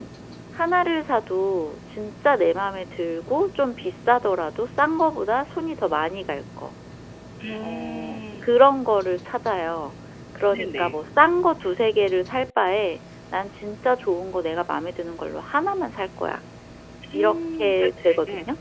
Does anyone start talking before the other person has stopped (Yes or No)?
Yes